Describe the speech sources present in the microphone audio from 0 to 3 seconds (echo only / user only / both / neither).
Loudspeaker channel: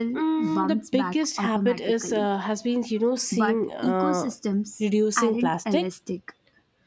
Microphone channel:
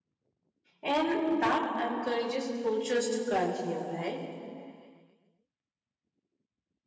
user only